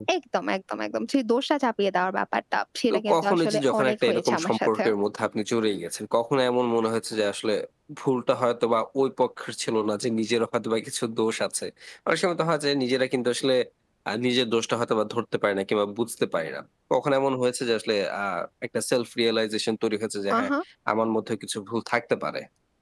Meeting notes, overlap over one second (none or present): present